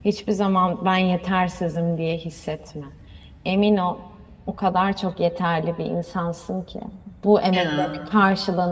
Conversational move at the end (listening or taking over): listening